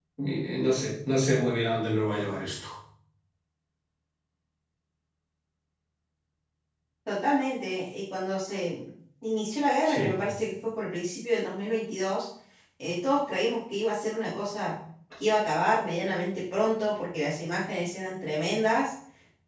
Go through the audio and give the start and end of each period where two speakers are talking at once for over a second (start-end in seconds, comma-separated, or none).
none